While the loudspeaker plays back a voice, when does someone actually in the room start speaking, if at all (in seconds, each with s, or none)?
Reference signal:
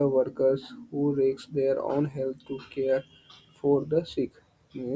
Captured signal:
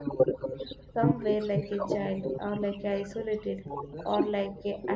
1.0 s